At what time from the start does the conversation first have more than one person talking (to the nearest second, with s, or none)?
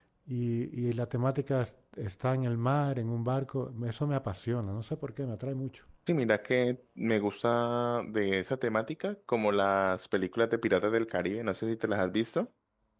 none